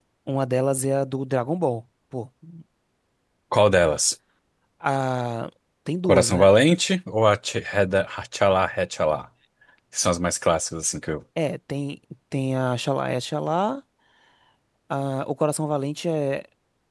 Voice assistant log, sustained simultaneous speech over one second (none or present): none